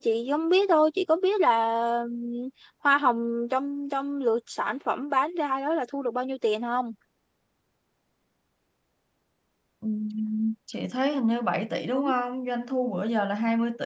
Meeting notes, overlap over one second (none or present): none